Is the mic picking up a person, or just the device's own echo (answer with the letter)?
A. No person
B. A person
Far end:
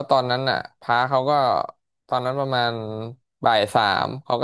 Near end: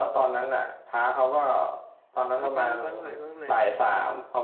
B